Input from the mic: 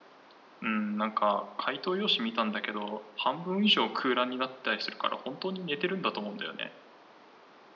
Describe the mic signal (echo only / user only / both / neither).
user only